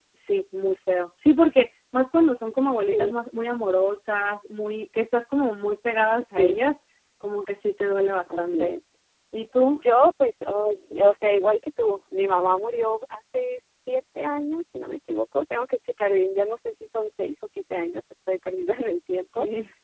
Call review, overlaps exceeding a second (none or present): none